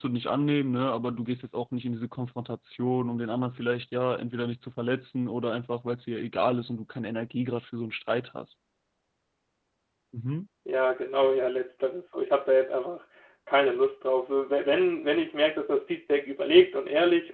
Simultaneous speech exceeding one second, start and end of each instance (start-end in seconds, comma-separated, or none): none